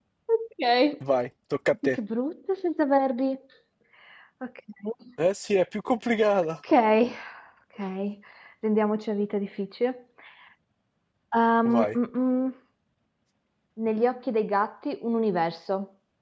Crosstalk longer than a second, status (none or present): none